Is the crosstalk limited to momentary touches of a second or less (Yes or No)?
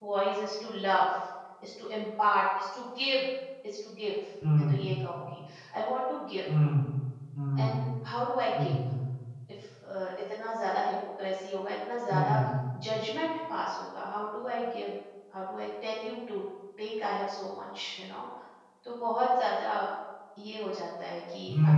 Yes